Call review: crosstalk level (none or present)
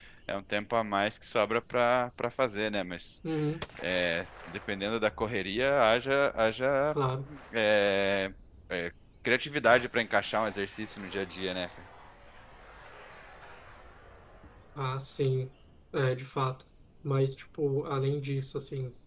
none